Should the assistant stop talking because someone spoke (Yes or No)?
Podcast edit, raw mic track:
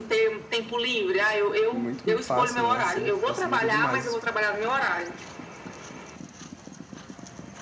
Yes